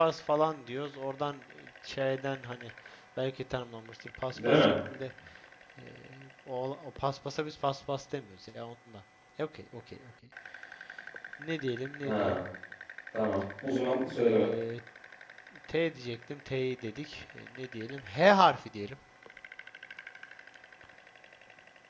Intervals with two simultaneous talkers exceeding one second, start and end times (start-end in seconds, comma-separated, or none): none